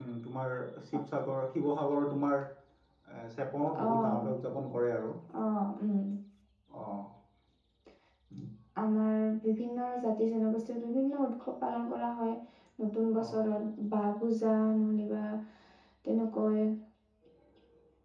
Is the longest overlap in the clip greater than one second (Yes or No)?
No